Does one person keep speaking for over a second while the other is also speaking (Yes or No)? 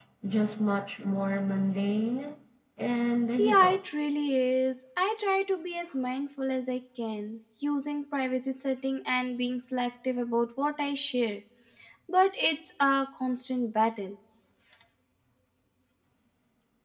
No